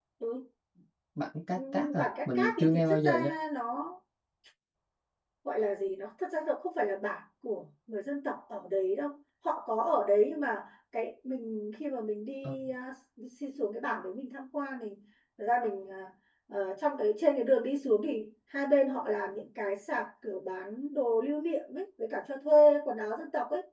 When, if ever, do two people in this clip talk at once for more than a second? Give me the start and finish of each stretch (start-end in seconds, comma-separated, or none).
1.6-3.1